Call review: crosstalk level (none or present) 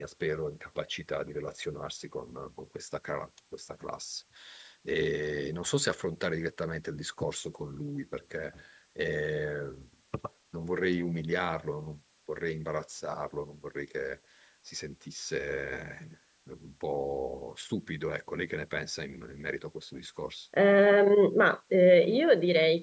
none